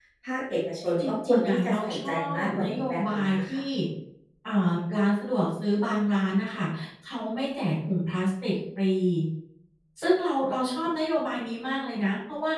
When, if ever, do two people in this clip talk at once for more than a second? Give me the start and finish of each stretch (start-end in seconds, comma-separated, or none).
1.0-3.6